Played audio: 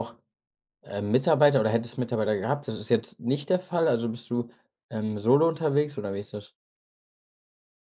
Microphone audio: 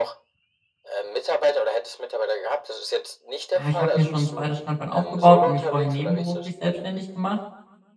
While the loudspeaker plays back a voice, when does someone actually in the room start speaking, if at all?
3.5 s

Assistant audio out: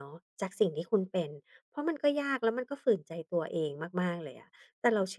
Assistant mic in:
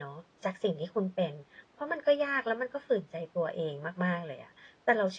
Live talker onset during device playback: none

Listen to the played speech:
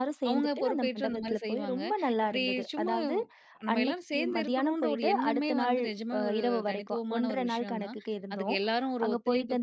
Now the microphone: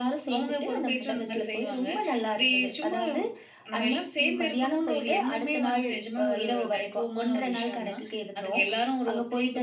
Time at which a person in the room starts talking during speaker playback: none

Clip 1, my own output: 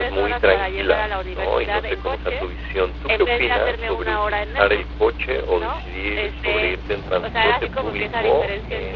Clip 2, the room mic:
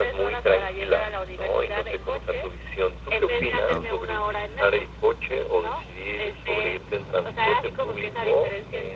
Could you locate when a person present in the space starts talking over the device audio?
3.2 s

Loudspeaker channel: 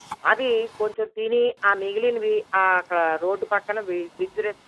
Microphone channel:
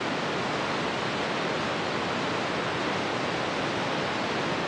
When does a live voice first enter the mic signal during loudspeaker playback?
none

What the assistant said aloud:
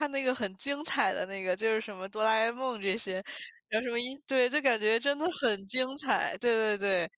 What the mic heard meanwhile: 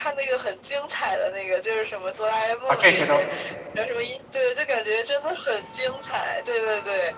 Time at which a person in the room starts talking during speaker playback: 2.7 s

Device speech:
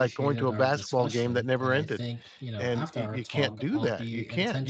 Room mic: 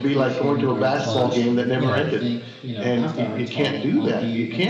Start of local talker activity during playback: 0.9 s

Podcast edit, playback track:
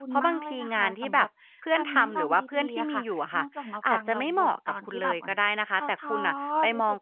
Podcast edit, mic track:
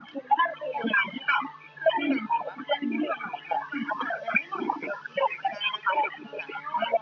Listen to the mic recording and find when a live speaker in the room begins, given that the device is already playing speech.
none

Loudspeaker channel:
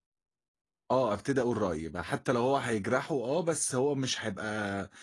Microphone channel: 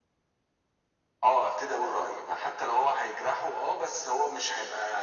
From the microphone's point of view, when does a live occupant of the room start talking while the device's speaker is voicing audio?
none

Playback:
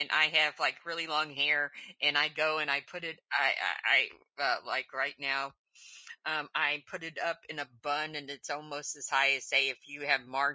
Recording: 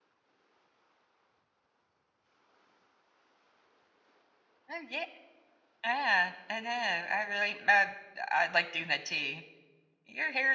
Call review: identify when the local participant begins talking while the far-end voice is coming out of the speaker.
4.7 s

